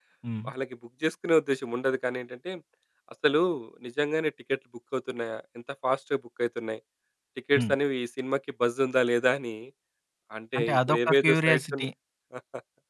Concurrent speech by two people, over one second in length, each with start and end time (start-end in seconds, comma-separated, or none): 10.6-11.9